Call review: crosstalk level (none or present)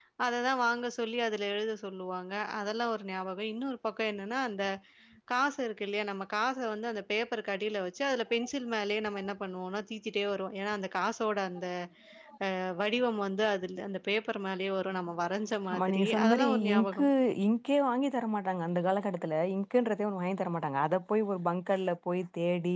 present